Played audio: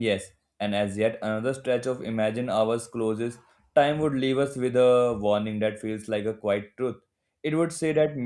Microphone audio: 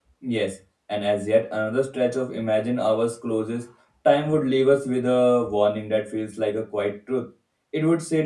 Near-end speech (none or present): none